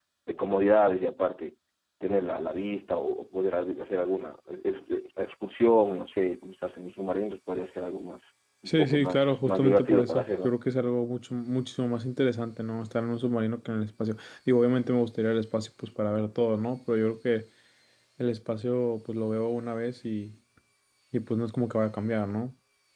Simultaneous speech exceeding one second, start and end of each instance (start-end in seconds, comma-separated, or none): 8.7-10.6